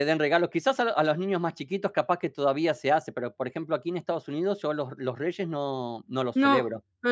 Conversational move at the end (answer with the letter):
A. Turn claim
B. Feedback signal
A